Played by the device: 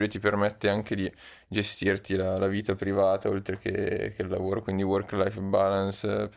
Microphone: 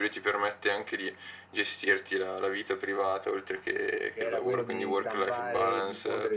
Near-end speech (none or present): present